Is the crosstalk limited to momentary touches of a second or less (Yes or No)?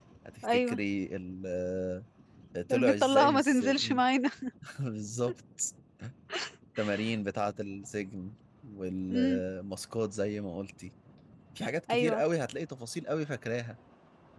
No